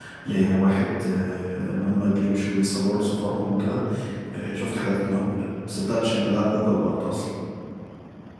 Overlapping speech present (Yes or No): No